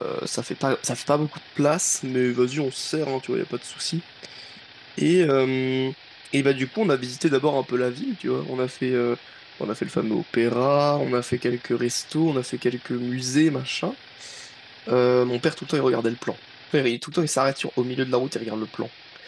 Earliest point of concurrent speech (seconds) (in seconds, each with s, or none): none